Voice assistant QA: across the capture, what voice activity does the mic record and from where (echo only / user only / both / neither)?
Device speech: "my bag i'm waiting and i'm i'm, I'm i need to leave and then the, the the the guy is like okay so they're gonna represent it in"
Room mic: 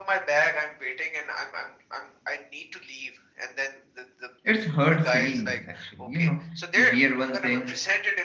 both